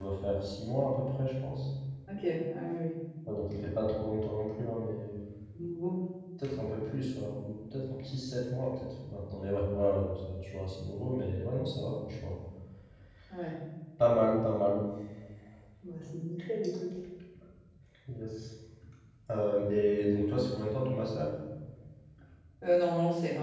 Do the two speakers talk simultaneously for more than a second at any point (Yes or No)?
No